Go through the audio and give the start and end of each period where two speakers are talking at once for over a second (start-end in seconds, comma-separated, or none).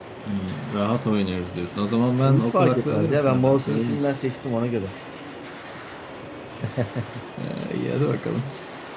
2.2-4.0